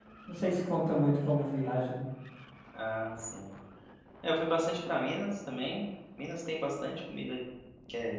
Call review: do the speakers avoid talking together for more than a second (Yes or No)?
Yes